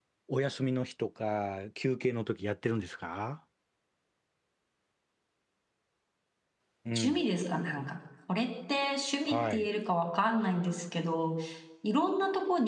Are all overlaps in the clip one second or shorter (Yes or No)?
Yes